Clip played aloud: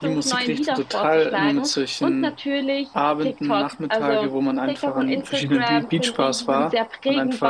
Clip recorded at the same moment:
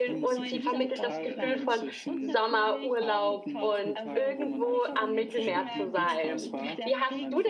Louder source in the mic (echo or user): user